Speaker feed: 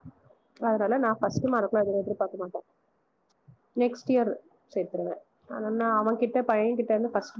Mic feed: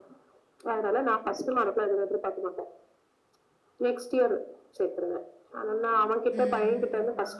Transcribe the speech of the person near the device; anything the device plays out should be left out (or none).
ம்